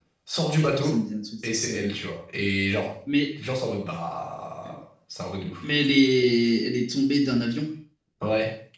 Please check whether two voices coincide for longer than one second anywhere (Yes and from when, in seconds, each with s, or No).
No